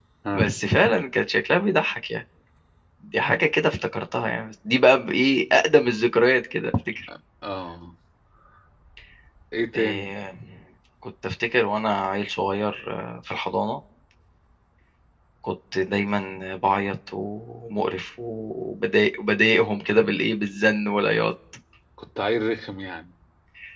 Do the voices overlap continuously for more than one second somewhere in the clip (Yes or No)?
No